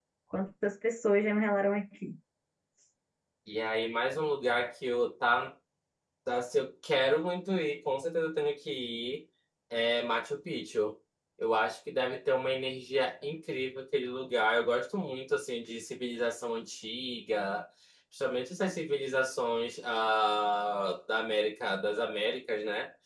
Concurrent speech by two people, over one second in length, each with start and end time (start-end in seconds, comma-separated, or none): none